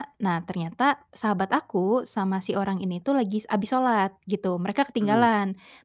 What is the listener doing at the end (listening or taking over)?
listening